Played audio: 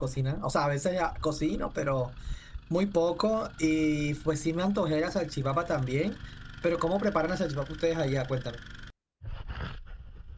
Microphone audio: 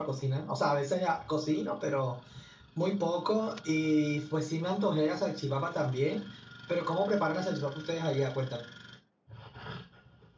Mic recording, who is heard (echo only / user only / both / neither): echo only